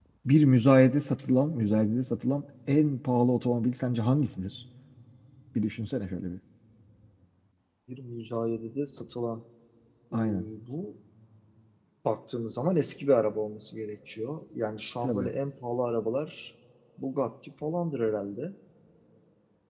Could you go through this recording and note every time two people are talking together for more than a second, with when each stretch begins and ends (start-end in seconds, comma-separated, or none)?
none